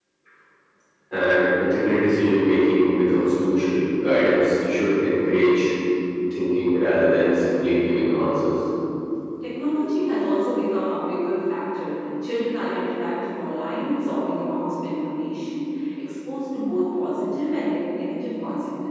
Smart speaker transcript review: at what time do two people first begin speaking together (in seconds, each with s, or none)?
none